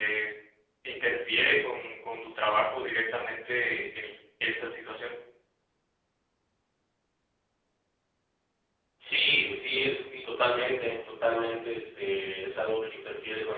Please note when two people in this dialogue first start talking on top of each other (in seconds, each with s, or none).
none